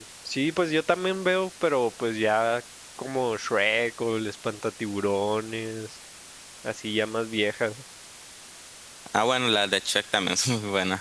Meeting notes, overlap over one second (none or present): none